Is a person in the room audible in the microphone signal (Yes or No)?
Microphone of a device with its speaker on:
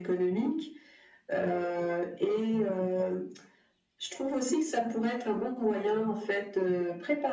No